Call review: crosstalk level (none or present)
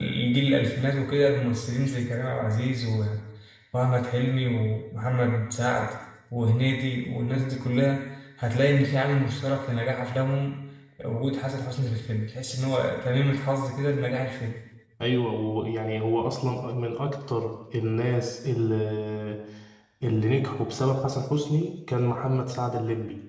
none